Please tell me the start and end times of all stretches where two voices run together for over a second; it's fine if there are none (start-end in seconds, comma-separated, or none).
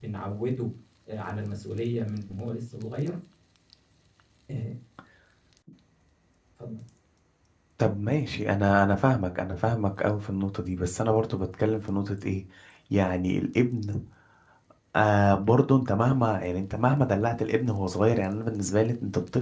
none